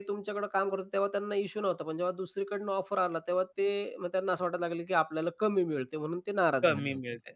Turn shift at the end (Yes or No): Yes